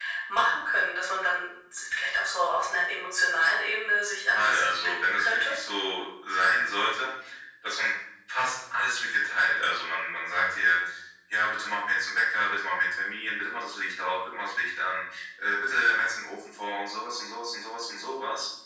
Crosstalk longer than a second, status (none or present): present